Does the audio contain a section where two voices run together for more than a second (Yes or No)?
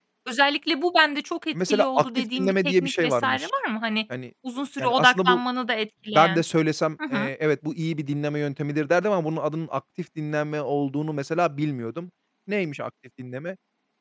Yes